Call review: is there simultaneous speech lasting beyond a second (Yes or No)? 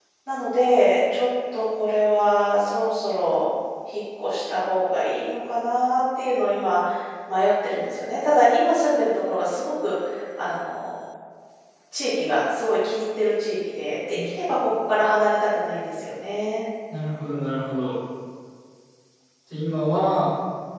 No